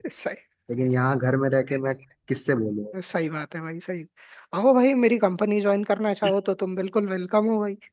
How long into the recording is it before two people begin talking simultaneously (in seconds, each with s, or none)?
none